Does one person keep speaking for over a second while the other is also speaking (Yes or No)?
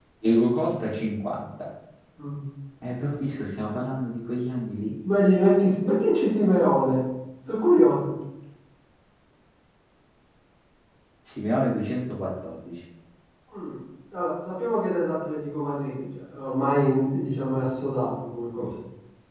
No